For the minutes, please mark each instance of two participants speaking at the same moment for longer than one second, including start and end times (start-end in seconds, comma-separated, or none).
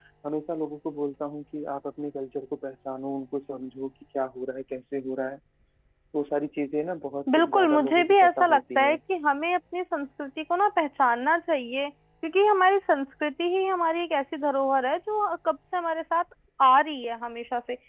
7.3-9.0